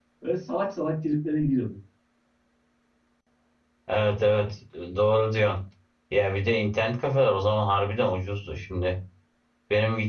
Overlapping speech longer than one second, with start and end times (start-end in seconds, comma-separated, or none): none